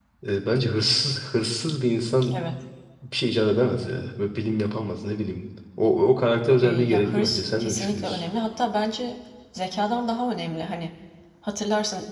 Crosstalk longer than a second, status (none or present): present